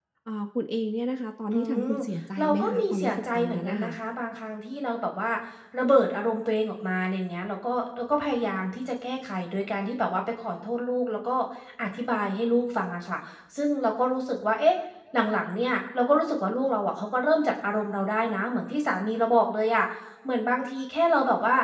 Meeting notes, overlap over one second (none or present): present